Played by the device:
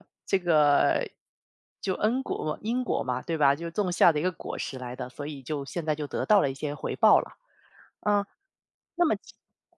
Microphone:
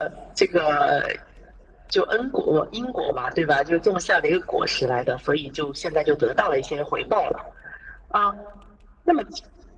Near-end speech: none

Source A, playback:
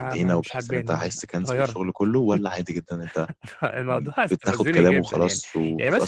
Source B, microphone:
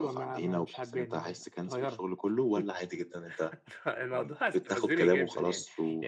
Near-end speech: none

